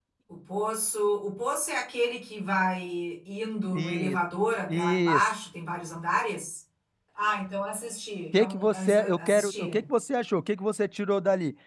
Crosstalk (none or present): present